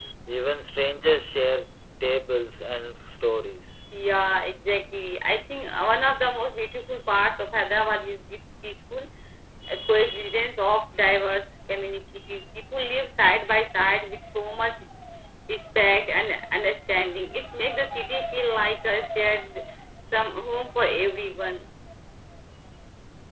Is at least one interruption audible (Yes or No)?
No